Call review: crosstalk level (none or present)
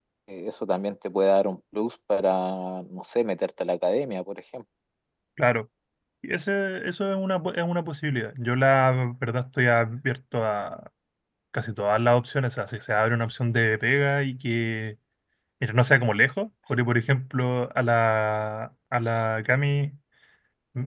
none